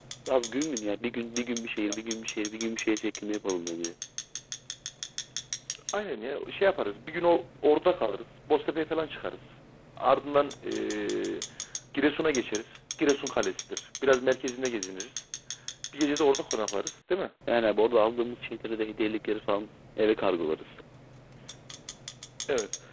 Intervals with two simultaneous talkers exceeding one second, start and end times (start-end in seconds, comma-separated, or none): none